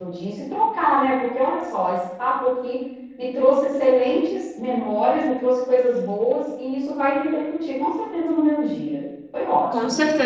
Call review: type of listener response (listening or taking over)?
taking over